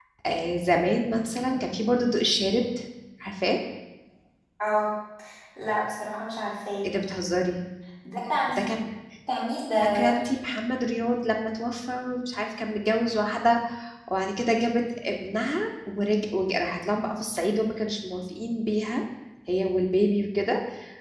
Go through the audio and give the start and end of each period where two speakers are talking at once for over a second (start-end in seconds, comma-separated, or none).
none